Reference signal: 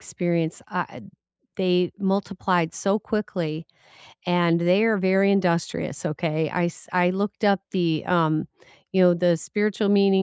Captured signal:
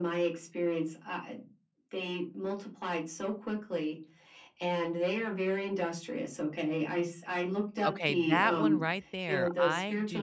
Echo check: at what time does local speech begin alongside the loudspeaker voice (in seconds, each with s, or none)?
7.8 s